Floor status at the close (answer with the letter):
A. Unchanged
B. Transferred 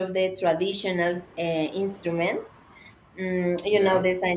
A